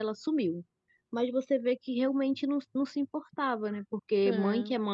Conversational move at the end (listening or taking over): listening